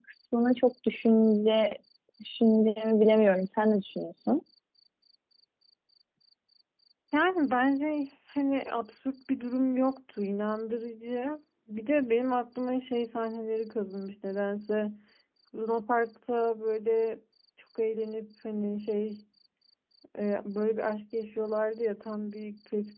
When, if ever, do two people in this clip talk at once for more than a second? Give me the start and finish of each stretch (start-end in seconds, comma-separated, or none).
none